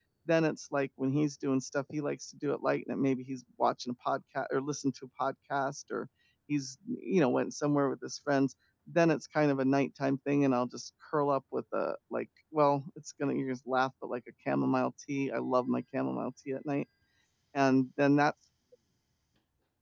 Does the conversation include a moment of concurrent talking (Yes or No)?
No